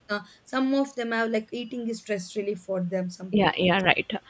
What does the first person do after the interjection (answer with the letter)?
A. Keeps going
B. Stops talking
B